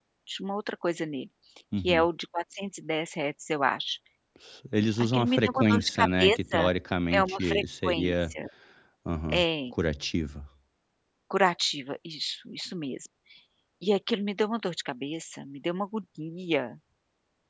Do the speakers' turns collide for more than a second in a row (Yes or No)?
Yes